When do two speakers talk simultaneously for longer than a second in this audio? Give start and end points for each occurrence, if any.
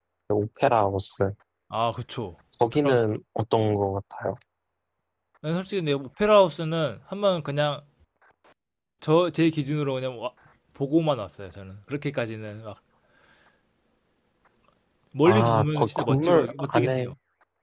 15.3-17.1

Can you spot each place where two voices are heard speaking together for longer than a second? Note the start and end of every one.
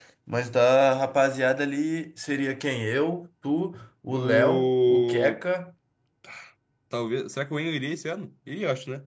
4.1-5.4

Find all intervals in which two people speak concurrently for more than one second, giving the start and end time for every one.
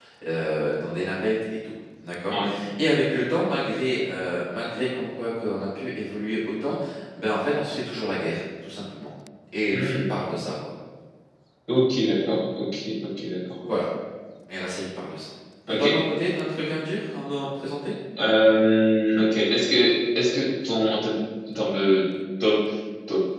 none

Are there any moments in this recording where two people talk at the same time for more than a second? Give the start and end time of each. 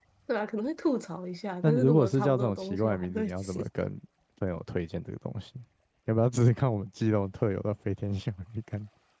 1.6-3.6

